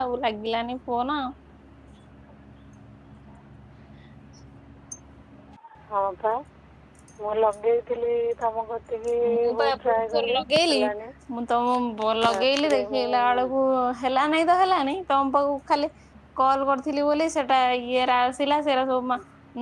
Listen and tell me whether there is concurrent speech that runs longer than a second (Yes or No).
Yes